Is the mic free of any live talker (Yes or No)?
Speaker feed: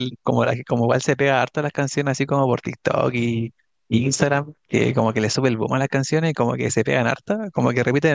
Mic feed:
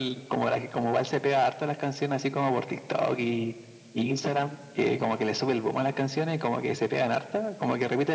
Yes